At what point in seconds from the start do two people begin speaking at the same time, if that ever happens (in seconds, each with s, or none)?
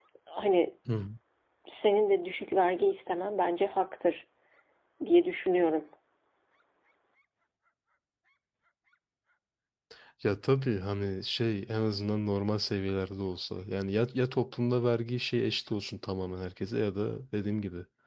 none